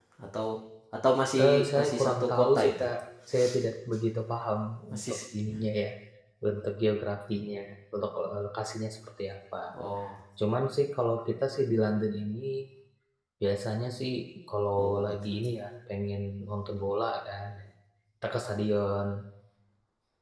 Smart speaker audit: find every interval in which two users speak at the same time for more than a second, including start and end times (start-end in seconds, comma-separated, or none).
1.4-2.9